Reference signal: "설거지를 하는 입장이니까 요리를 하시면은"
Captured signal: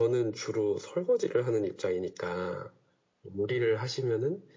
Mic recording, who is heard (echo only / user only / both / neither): echo only